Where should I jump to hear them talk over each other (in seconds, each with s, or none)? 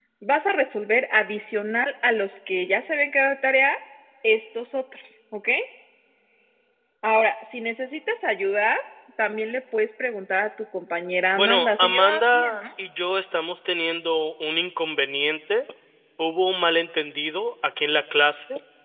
11.3 s